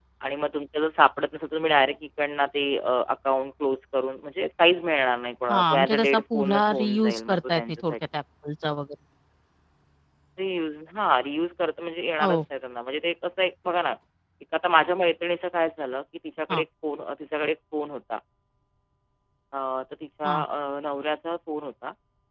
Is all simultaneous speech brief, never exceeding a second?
No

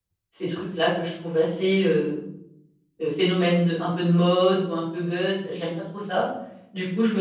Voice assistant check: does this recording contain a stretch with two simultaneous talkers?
No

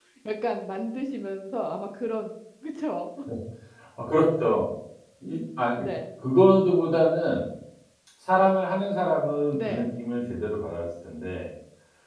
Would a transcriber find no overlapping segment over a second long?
Yes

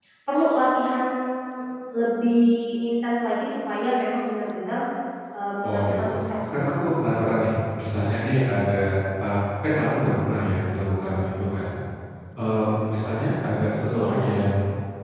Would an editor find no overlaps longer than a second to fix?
Yes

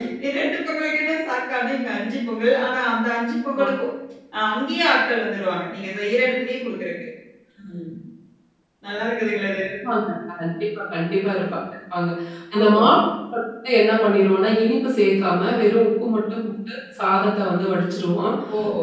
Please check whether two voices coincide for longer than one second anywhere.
No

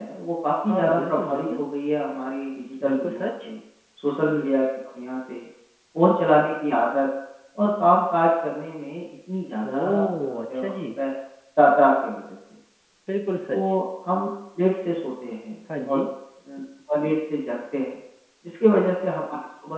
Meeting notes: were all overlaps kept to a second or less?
No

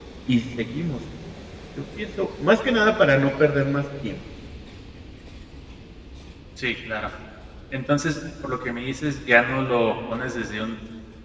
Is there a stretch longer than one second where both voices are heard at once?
No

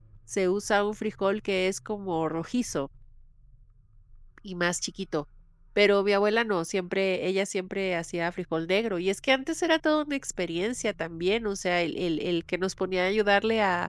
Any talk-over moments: No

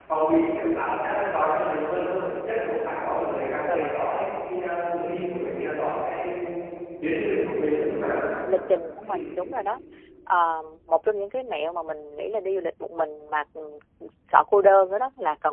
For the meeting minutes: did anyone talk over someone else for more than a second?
No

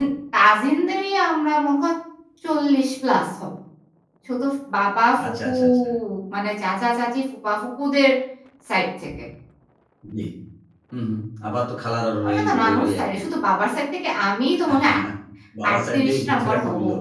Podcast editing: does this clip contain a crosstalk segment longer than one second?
Yes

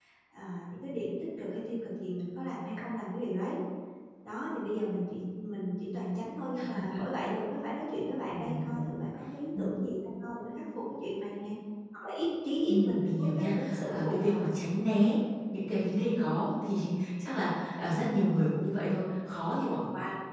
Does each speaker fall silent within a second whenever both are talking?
No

